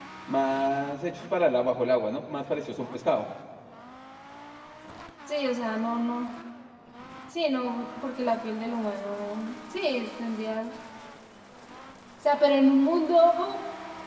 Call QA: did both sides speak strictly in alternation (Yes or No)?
Yes